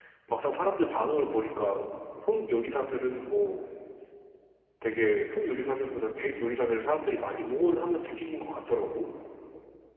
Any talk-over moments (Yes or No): No